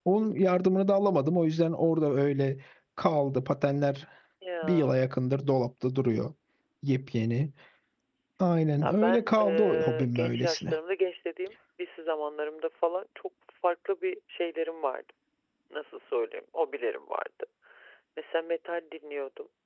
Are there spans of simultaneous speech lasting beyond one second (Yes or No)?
Yes